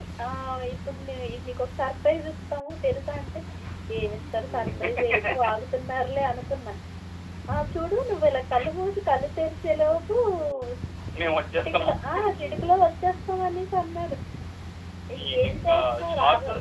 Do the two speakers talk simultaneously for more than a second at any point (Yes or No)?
Yes